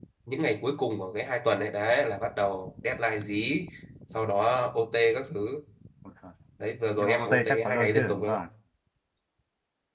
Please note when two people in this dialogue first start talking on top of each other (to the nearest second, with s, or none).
7 s